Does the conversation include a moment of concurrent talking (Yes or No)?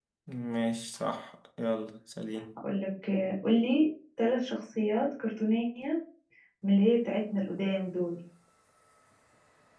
No